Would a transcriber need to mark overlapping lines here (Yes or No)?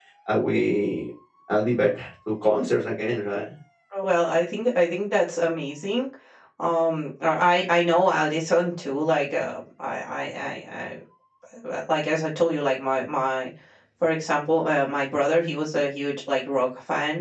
No